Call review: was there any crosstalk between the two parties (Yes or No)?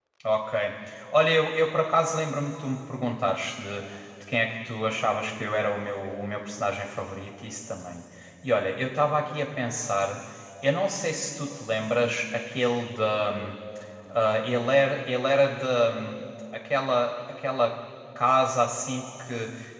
No